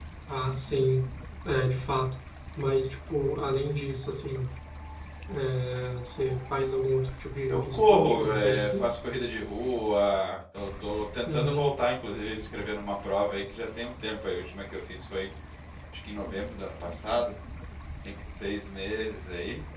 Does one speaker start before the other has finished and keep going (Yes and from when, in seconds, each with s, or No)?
Yes, from 7.5 s